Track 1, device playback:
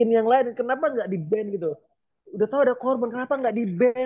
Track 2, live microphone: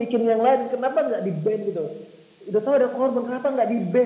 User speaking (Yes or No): No